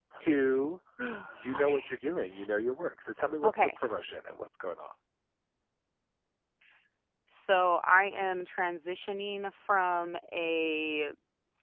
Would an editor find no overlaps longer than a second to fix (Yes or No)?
Yes